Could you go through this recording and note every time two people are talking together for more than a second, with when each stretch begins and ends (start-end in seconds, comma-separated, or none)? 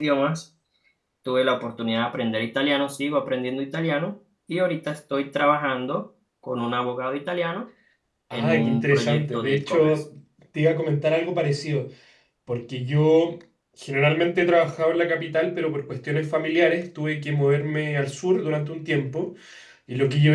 8.3-10.0